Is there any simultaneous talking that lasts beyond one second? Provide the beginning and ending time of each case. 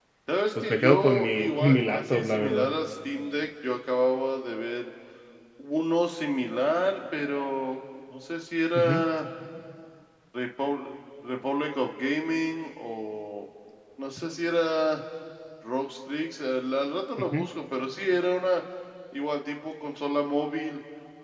0.6-2.7

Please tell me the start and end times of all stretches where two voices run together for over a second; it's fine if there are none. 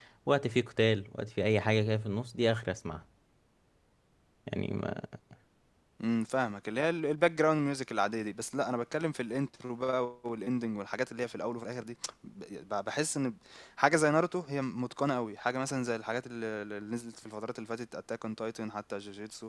none

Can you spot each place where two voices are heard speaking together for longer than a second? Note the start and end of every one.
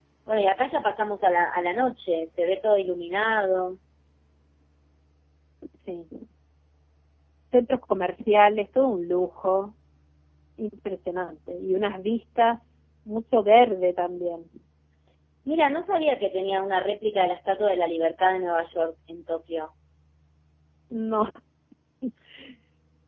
none

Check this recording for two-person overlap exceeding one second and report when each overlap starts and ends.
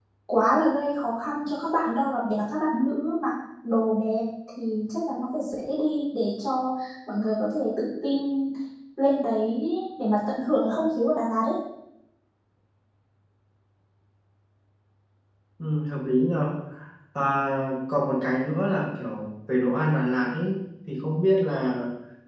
none

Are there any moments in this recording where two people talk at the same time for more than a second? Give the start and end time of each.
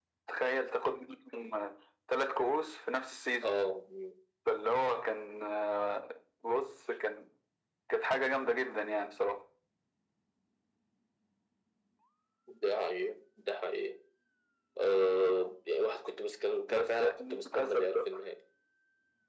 16.8-18.0

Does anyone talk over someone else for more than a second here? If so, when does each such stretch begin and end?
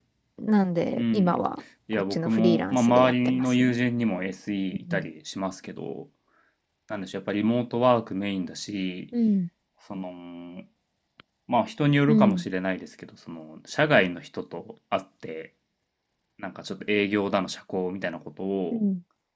1.9-3.8

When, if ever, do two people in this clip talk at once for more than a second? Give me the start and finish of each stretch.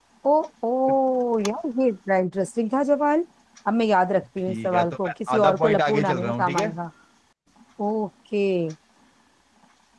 4.5-6.7

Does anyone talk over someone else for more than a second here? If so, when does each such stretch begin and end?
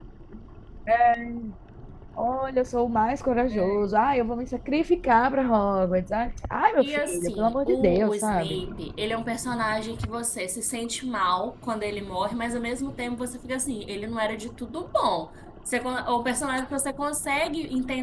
6.8-8.6

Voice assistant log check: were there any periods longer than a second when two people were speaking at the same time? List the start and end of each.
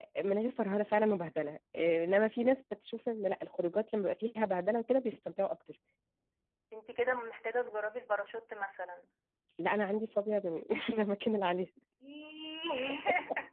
none

